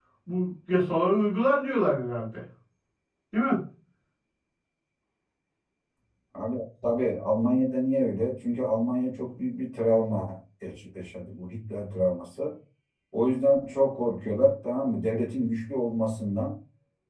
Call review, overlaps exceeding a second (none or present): none